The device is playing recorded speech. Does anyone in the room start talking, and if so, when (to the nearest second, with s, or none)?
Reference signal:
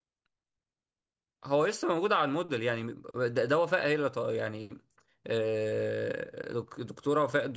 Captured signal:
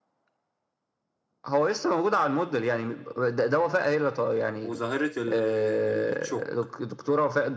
5 s